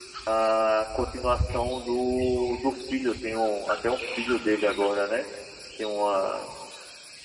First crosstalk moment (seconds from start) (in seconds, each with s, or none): none